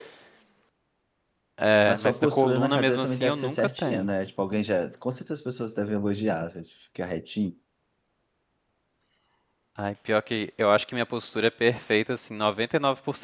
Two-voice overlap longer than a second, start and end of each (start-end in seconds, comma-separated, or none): 1.9-4.1